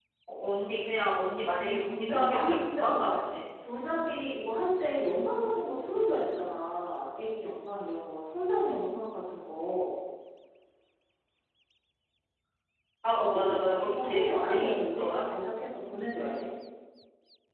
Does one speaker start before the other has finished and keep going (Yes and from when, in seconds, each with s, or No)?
Yes, from 1.5 s